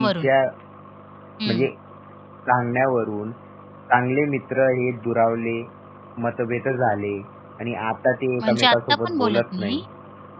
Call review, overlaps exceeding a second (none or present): present